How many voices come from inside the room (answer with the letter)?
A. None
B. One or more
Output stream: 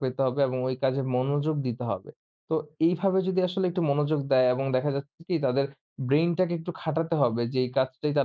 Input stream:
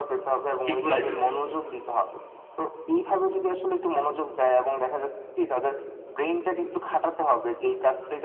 B